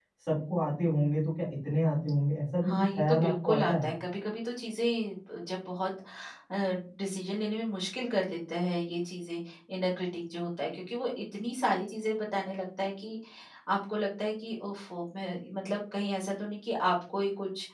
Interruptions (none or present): present